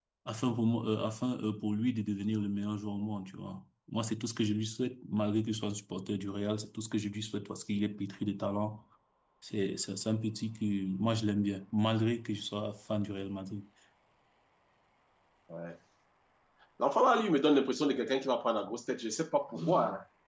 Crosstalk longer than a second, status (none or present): none